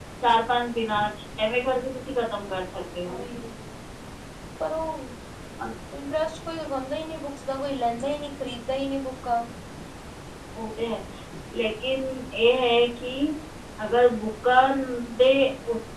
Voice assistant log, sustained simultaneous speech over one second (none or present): none